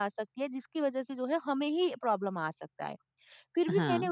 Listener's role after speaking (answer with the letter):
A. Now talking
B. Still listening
B